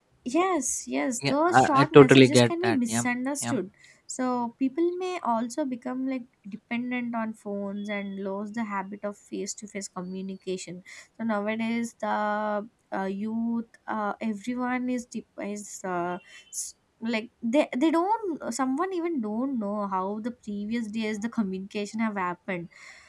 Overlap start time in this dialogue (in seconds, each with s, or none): 1.3 s